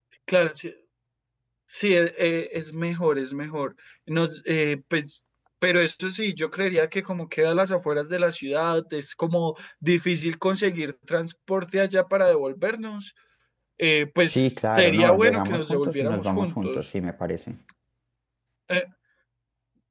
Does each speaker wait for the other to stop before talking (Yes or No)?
No